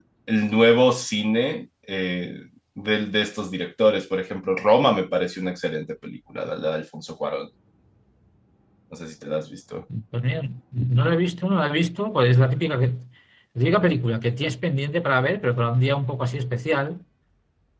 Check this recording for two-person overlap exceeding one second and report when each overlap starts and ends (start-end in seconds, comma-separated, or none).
none